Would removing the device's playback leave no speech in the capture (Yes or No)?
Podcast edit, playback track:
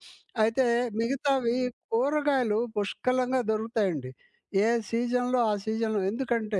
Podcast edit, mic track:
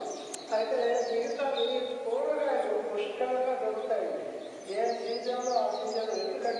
Yes